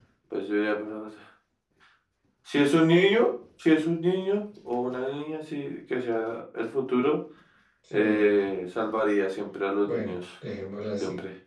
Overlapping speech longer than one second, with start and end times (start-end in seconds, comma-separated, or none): none